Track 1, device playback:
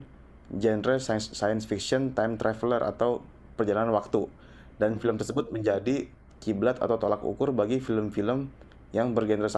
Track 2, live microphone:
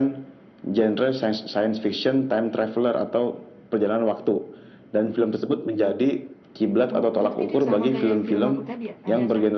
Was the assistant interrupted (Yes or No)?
Yes